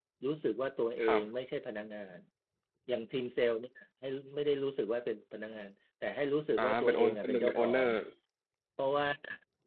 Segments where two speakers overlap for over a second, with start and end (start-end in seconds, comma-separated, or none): 6.6-7.9